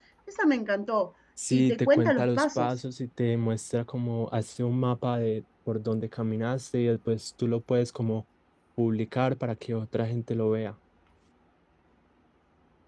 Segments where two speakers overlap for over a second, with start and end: 1.5-2.7

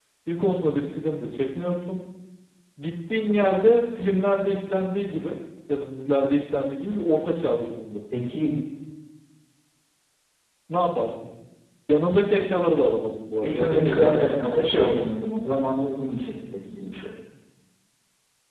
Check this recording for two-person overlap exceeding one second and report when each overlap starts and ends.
13.4-15.1

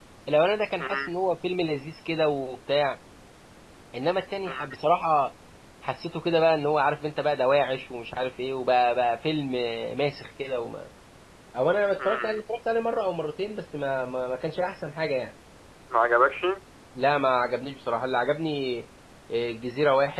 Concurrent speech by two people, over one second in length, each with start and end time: none

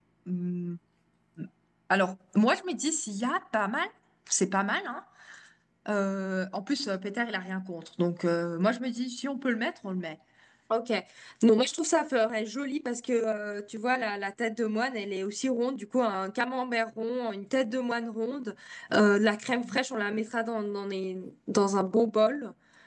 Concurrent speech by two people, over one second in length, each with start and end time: none

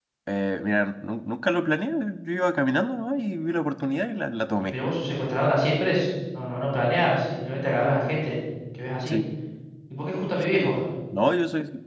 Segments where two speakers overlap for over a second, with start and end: none

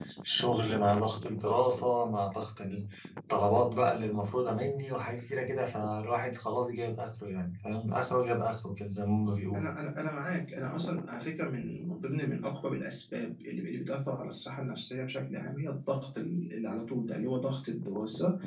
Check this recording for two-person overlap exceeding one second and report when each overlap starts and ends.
none

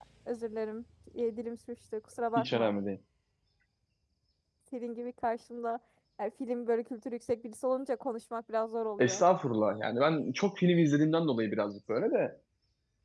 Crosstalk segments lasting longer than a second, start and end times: none

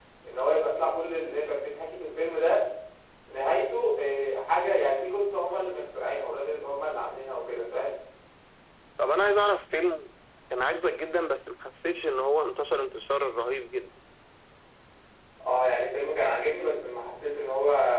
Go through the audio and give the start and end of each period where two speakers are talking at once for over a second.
none

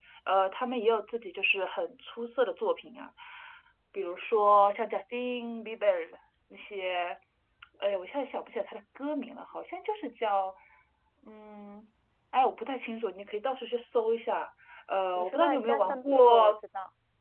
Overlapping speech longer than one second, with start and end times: 15.2-16.5

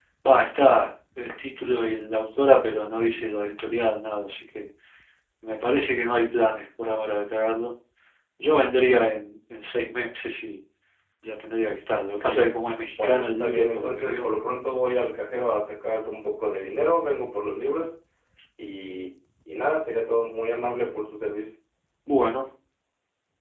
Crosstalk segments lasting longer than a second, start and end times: 13.0-14.3

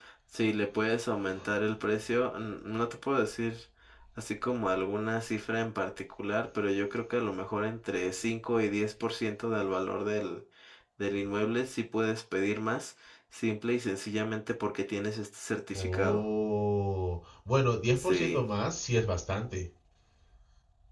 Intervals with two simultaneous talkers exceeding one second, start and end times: none

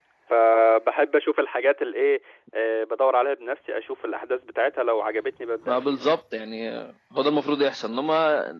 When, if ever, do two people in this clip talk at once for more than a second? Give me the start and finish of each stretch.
none

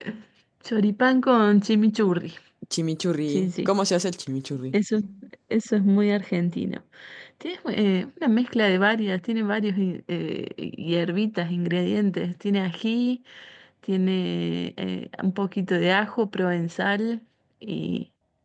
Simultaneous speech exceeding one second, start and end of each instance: none

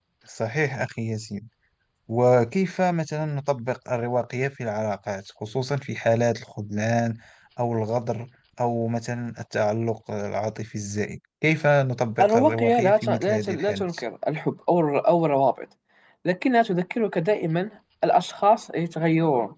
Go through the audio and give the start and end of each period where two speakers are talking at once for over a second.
12.2-13.9

